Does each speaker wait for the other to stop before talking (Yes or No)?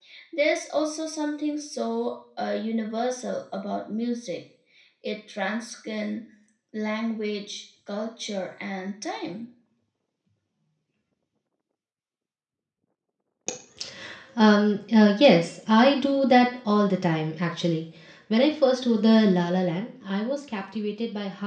Yes